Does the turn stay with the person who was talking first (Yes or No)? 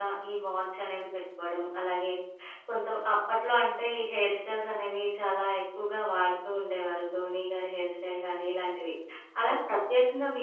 Yes